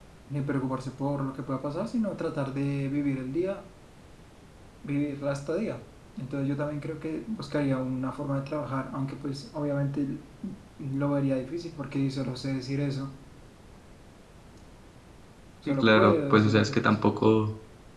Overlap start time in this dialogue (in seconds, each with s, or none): 15.7 s